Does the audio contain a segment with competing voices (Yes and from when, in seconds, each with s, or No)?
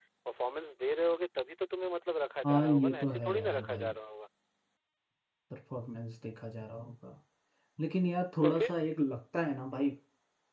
Yes, from 2.5 s